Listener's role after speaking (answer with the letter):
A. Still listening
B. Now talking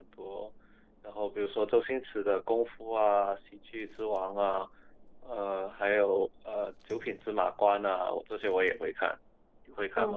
B